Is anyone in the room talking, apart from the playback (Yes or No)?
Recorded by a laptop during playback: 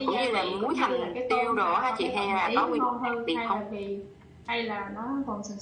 Yes